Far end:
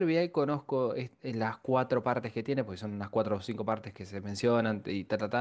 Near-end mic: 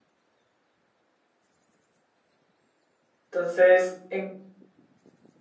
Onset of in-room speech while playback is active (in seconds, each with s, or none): 3.3 s